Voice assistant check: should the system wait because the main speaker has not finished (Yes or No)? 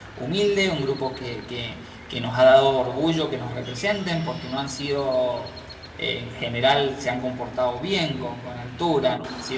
Yes